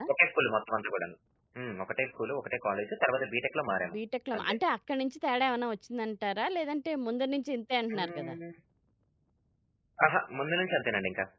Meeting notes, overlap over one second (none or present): none